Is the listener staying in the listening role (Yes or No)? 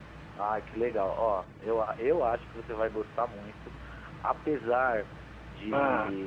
Yes